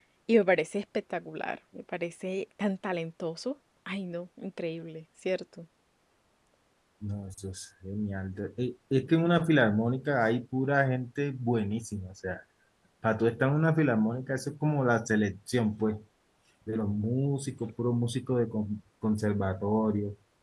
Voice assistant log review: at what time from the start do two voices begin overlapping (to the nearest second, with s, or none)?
none